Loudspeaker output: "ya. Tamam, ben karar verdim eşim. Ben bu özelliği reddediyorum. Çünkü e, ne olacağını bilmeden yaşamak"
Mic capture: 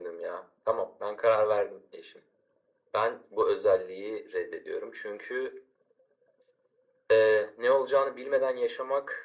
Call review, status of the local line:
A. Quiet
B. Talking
A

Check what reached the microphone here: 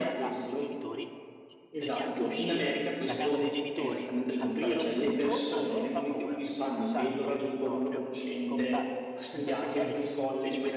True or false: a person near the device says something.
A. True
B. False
A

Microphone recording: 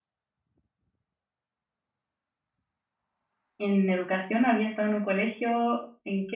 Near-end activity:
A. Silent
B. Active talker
B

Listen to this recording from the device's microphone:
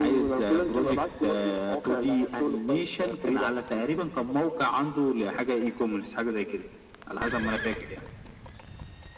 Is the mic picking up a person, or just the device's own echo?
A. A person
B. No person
B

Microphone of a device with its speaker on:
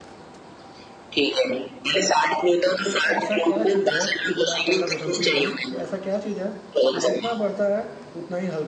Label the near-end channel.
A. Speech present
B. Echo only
A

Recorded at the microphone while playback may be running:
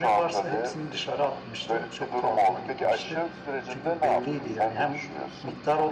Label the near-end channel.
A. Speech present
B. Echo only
B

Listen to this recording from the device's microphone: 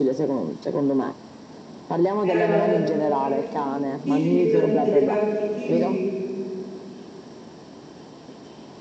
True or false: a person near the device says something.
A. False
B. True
B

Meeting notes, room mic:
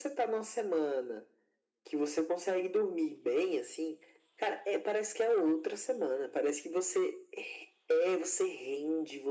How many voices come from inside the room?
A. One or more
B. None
B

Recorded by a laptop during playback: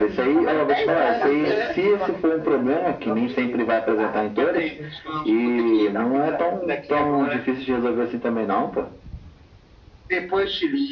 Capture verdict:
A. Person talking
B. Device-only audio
A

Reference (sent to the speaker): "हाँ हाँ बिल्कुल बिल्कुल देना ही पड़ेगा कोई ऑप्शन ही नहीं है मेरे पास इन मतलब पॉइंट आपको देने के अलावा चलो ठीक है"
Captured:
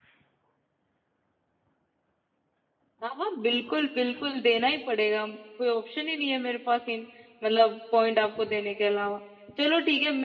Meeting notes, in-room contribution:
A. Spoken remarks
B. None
B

